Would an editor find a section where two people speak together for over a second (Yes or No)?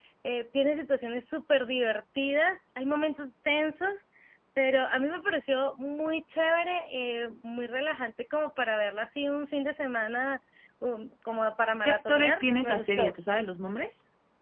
Yes